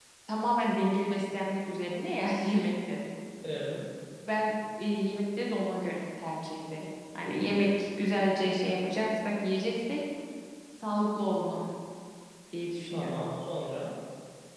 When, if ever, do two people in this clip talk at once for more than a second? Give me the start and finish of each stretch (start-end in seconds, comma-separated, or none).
none